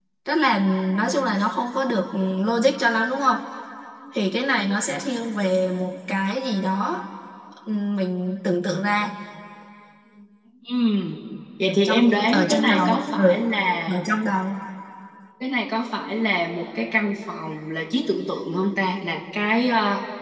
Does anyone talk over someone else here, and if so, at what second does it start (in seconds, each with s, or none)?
11.7 s